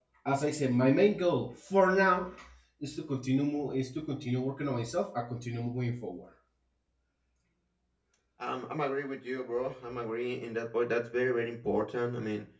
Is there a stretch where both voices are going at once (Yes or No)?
No